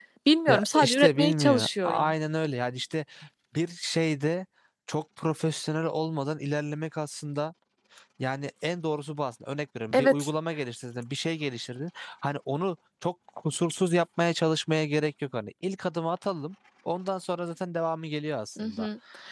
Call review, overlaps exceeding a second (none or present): present